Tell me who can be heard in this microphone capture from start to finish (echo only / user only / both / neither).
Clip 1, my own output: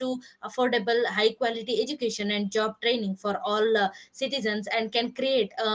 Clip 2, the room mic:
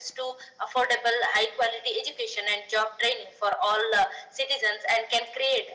echo only